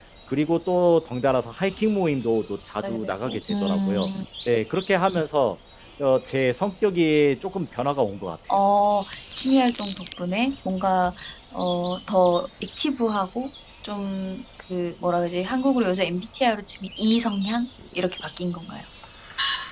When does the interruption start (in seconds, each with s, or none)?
2.8 s